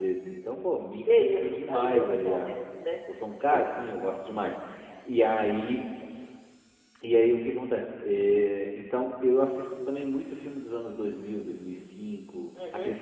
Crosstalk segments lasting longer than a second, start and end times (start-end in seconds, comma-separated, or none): 1.2-2.6